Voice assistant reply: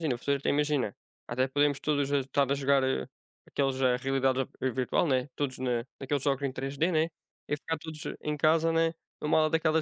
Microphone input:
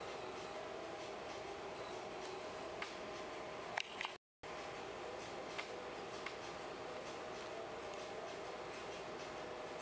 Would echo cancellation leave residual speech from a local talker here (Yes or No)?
No